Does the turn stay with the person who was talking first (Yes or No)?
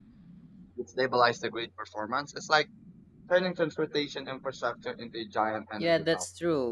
No